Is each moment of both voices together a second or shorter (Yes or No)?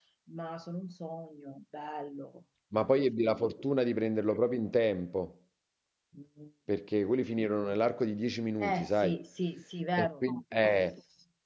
Yes